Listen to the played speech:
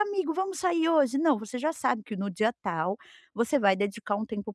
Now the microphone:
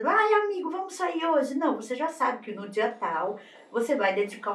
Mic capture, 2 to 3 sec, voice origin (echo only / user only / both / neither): echo only